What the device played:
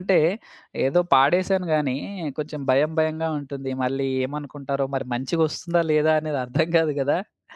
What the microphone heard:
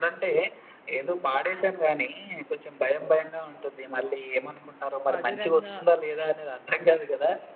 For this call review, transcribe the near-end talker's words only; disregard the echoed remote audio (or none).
మధురంగా